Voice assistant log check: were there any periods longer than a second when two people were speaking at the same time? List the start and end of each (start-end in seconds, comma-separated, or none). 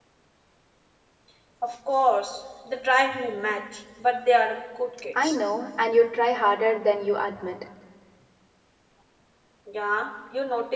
none